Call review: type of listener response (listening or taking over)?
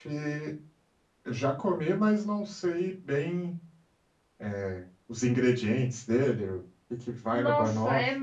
taking over